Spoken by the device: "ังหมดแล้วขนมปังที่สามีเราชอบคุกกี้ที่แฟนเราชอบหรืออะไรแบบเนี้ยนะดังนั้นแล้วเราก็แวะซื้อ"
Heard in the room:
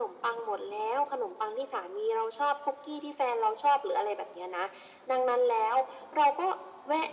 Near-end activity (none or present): none